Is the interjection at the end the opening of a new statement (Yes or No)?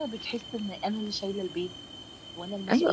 Yes